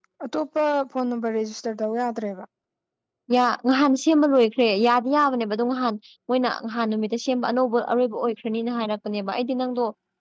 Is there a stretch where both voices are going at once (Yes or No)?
No